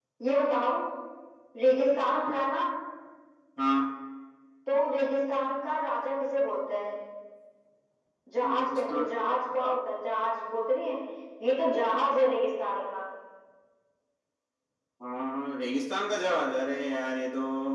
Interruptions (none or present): present